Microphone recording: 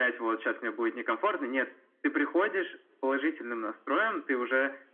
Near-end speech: none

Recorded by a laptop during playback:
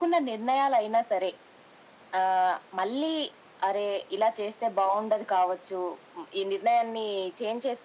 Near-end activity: none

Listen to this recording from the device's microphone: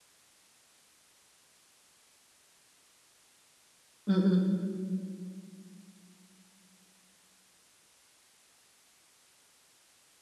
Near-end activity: present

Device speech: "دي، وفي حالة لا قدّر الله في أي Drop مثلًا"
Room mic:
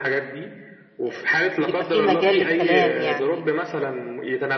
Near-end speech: present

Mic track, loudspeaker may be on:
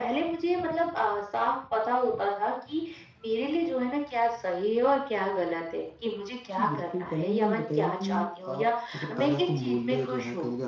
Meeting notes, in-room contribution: present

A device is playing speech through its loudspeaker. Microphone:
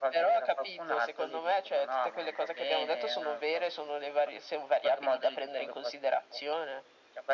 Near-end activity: none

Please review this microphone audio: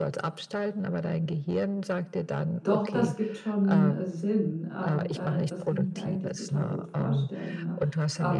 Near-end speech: present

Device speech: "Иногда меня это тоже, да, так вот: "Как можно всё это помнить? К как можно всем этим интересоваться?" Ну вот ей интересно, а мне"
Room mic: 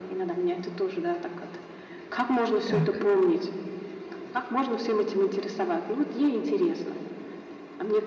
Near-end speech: present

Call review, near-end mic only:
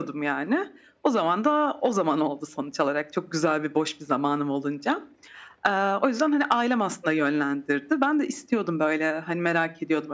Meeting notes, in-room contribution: none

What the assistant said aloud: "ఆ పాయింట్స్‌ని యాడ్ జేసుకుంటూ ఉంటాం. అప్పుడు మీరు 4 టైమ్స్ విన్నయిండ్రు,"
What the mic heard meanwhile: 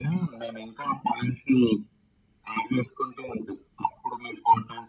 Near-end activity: none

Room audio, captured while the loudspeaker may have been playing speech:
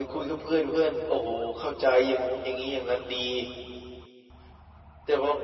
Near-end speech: none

